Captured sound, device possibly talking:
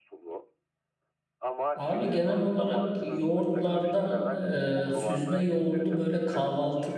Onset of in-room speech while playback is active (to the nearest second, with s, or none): 2 s